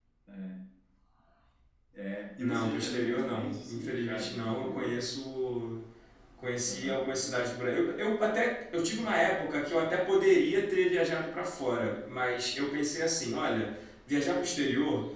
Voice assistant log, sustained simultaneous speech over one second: present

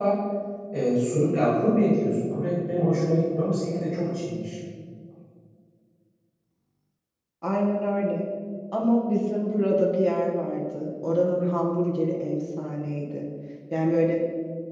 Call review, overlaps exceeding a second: none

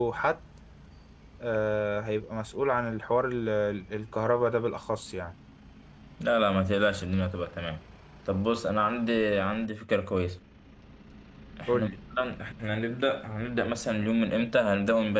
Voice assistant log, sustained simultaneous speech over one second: none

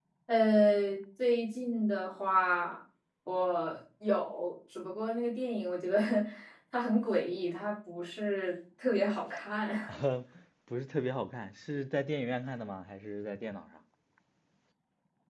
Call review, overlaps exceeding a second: none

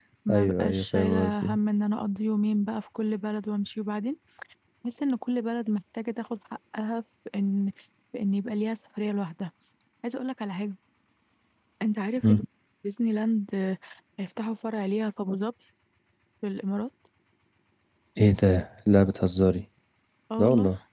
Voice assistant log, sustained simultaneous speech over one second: present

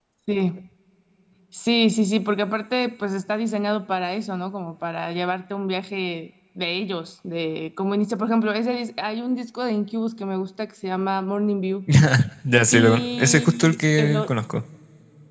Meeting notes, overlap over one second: present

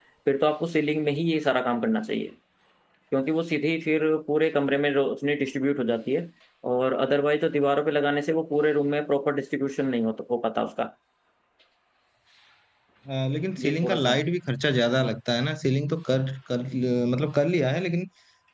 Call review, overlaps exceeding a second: none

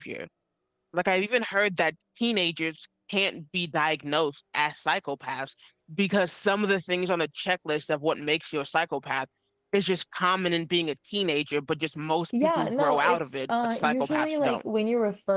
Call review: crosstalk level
present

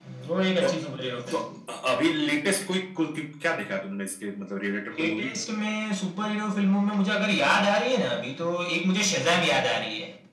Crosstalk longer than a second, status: none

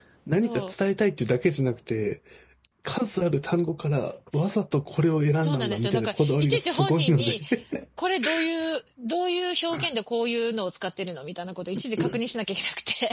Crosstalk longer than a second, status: present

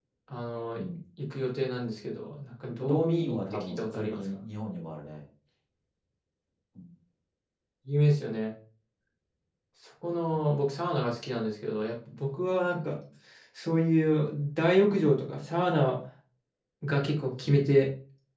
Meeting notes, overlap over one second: present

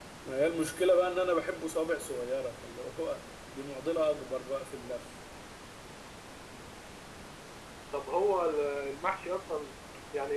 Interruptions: none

